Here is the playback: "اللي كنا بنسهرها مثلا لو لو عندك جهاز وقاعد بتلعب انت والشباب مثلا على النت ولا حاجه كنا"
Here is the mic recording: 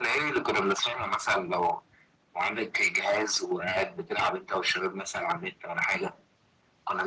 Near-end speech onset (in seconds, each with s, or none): none